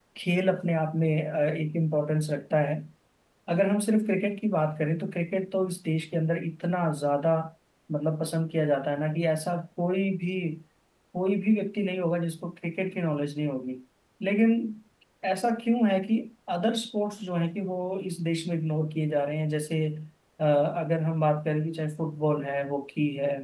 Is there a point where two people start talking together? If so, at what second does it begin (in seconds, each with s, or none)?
none